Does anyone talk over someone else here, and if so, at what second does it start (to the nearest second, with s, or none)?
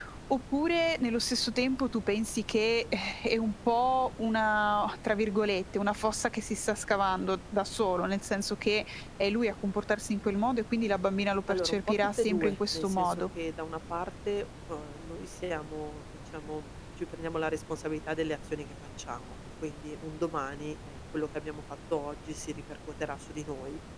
11 s